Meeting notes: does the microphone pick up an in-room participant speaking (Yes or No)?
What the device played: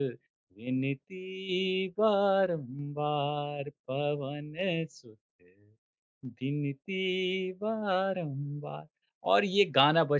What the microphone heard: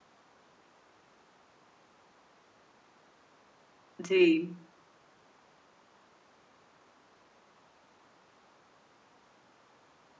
Yes